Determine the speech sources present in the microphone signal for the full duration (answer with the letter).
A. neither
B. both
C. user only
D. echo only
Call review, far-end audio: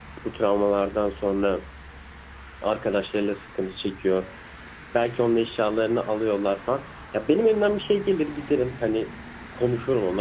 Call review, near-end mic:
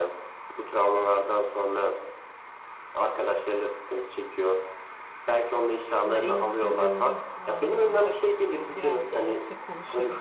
B